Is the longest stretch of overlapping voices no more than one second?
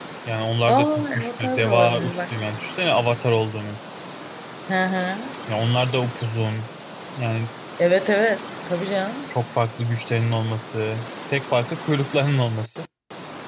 No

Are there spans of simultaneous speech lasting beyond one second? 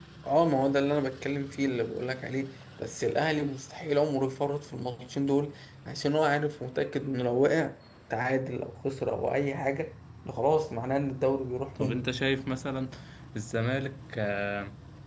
No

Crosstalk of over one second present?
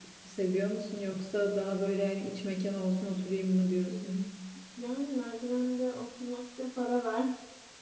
No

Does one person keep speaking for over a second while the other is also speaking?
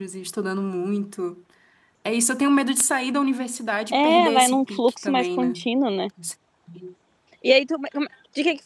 Yes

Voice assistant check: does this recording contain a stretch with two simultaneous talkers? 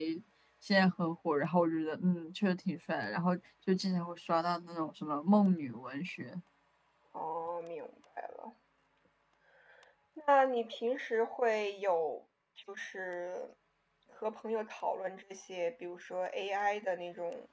No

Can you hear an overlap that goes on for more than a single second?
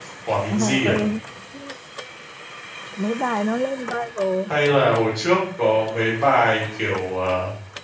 No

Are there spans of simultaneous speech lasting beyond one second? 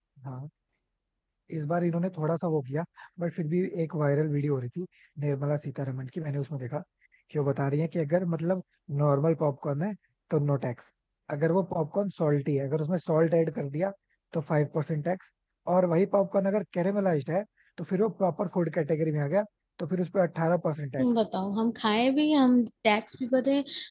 No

